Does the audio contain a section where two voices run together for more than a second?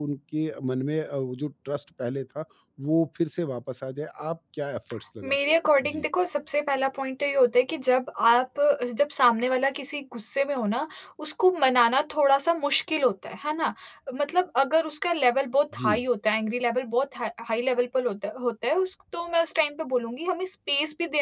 No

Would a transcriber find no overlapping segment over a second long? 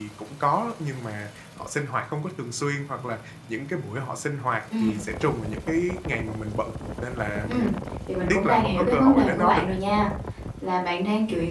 No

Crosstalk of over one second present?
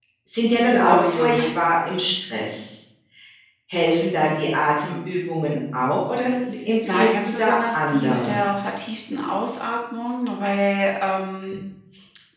Yes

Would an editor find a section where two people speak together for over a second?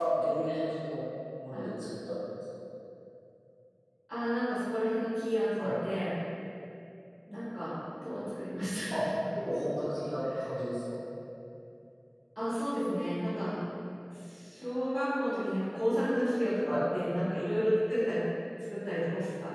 No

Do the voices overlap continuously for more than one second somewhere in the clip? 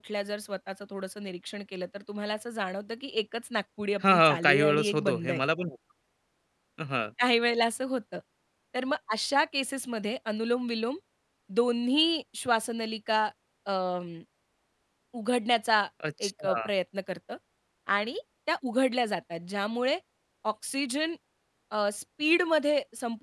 Yes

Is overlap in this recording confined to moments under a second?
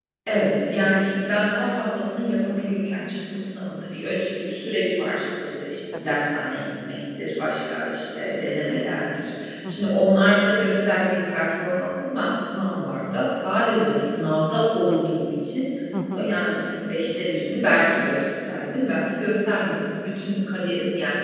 Yes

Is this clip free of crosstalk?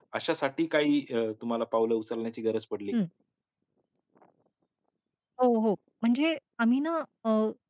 Yes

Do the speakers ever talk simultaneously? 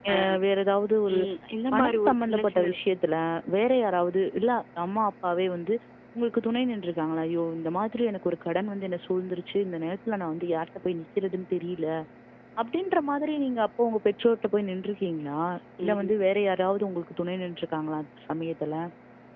Yes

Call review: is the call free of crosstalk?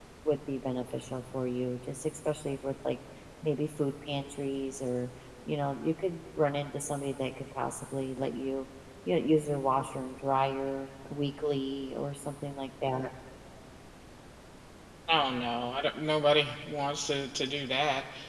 Yes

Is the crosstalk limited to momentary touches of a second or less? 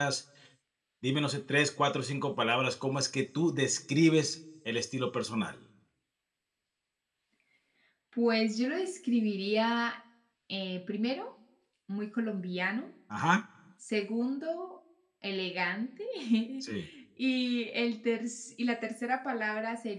Yes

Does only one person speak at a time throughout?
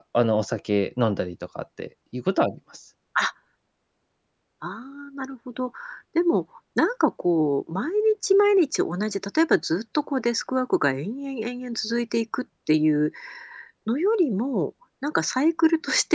Yes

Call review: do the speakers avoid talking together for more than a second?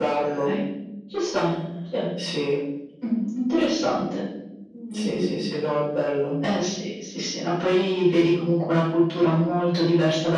Yes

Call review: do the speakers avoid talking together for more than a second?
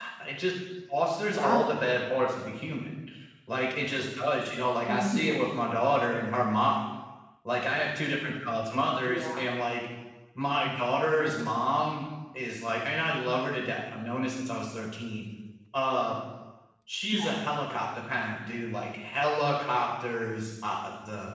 Yes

